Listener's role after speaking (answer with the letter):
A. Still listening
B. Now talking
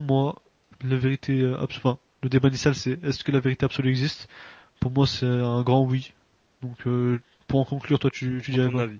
B